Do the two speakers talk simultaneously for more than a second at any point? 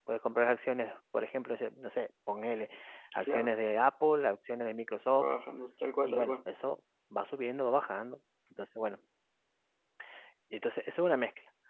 No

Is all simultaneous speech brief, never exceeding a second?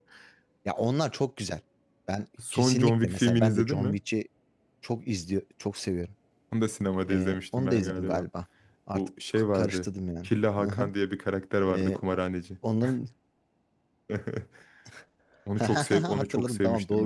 No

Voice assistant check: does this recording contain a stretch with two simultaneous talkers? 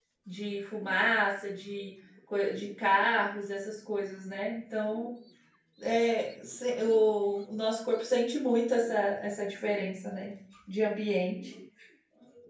No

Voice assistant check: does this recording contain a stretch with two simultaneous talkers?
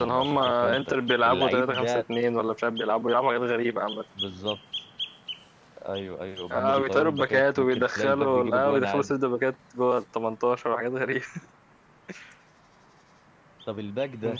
Yes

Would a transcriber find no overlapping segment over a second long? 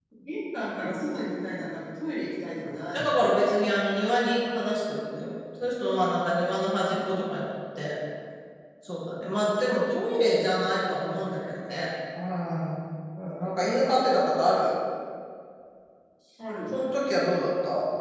Yes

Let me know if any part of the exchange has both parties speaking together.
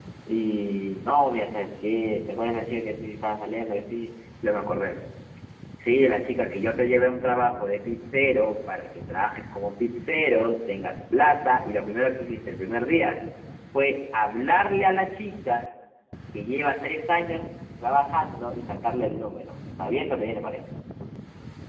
No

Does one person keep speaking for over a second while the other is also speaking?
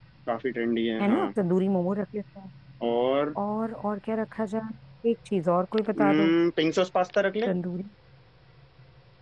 No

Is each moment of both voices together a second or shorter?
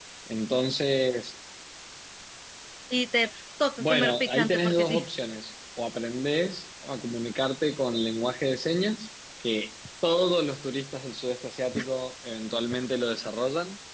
No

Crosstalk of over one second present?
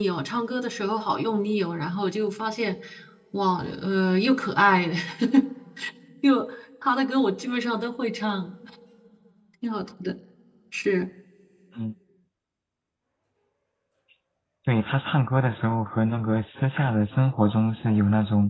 No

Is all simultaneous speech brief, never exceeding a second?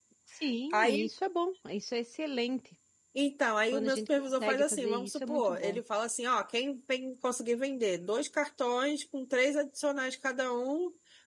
No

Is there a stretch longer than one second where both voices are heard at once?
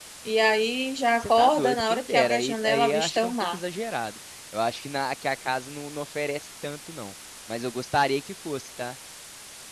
Yes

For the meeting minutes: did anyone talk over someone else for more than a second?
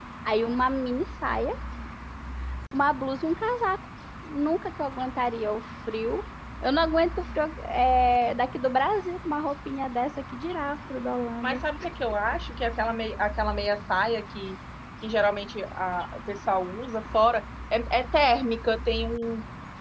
No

